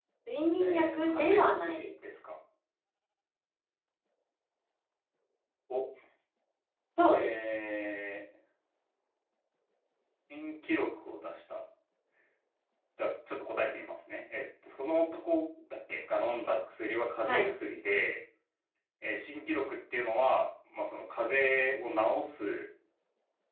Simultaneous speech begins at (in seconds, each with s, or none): 0.6 s